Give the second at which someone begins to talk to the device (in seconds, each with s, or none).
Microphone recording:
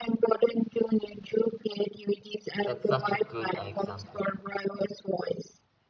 2.6 s